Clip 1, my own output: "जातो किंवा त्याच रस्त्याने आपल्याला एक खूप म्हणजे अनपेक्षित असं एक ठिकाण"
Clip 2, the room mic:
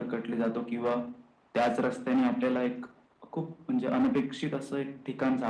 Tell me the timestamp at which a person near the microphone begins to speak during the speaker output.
none

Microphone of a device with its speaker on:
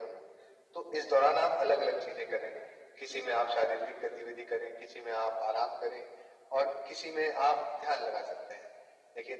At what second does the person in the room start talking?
none

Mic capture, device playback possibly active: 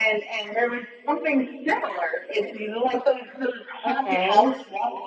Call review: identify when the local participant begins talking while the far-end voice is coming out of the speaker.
3.9 s

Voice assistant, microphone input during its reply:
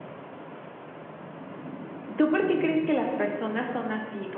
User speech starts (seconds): 2.2 s

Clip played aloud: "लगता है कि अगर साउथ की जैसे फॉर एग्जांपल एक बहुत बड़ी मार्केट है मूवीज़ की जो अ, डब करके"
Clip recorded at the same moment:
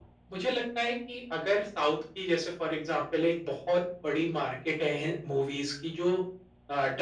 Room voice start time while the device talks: none

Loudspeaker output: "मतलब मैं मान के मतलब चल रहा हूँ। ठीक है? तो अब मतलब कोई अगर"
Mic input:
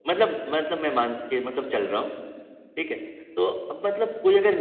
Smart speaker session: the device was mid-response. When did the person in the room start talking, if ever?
none

